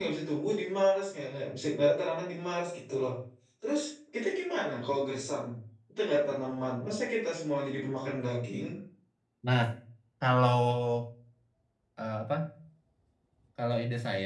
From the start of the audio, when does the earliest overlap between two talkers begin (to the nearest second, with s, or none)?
none